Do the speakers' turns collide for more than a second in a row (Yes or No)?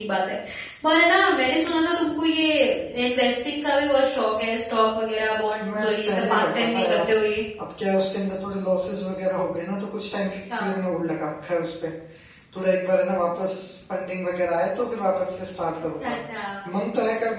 Yes